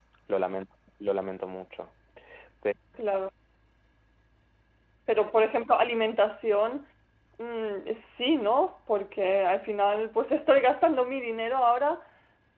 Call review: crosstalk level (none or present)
none